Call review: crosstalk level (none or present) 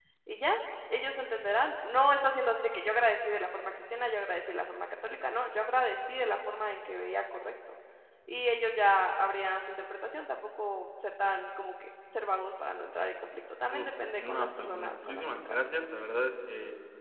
present